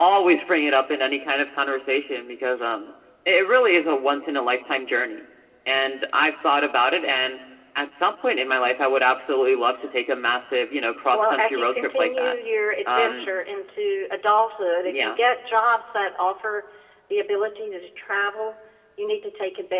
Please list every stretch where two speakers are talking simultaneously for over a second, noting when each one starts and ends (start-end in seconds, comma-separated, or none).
11.1-12.3